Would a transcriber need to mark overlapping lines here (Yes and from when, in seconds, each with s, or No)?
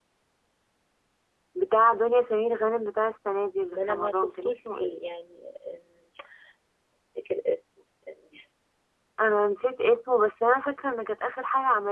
Yes, from 3.7 s